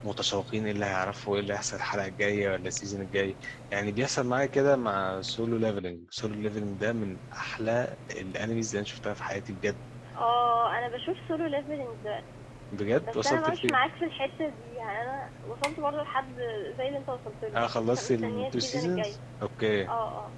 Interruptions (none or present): present